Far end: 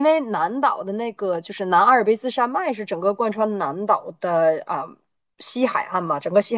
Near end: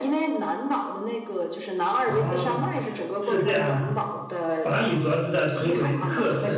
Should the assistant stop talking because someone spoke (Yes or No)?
Yes